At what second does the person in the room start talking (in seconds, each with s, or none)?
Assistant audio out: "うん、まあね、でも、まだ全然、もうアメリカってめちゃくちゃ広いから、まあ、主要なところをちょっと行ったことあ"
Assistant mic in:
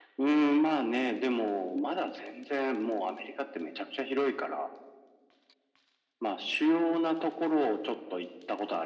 none